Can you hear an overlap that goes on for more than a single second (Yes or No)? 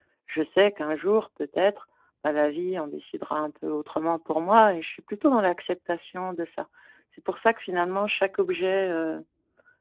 No